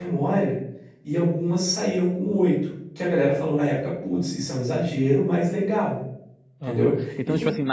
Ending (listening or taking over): taking over